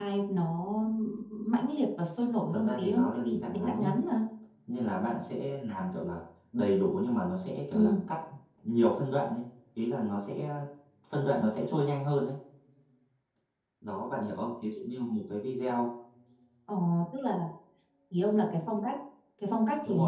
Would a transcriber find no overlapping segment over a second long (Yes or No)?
No